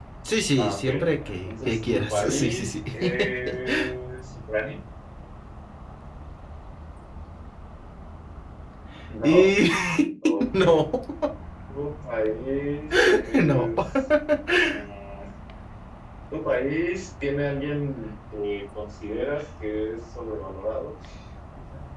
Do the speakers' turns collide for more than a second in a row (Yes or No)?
Yes